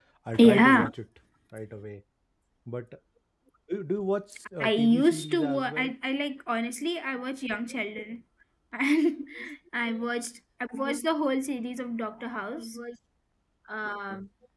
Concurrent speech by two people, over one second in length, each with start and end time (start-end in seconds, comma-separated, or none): 4.6-5.9